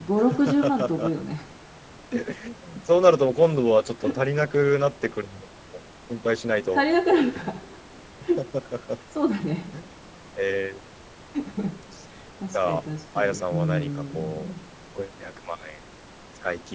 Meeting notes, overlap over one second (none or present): present